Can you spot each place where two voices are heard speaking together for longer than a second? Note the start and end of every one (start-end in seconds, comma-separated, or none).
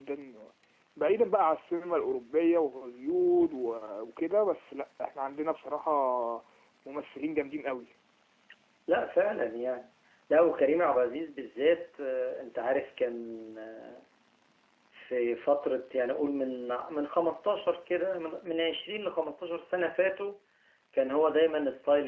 none